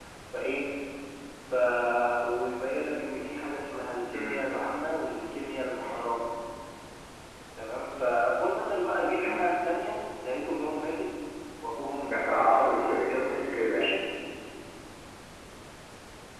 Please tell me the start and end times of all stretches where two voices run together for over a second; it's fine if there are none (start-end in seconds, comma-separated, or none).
12.0-13.9